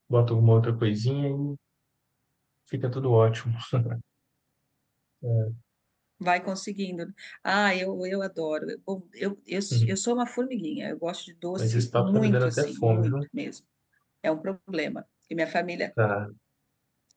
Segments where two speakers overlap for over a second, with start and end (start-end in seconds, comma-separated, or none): 11.6-13.2